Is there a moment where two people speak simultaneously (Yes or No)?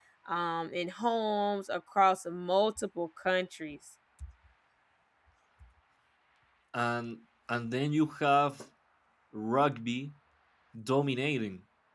No